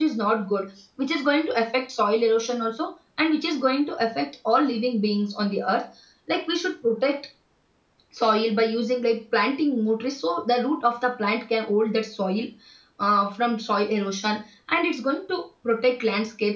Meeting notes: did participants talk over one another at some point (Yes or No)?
No